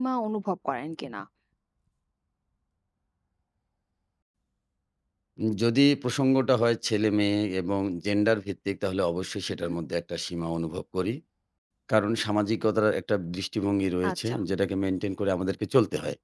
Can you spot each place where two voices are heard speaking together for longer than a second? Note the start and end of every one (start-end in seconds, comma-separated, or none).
none